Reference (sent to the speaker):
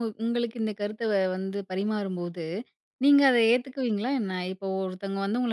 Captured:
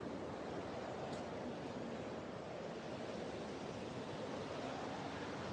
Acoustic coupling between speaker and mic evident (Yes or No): No